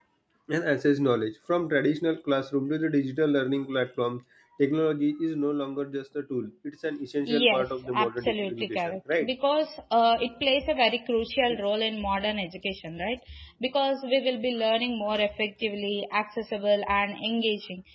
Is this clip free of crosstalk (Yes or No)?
No